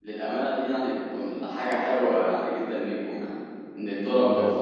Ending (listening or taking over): taking over